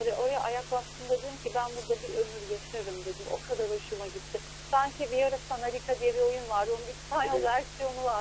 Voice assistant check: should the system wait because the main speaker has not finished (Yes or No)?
Yes